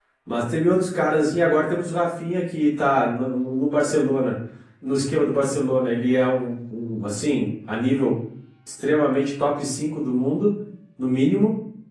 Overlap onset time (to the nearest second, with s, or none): none